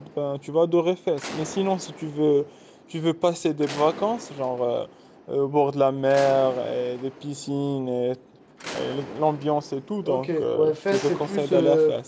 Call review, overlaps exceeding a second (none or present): present